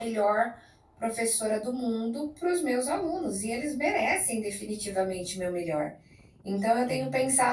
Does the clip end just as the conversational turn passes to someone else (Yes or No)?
No